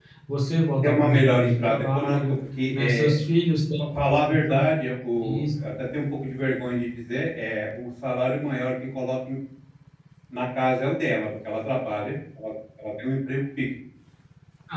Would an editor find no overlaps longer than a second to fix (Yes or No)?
No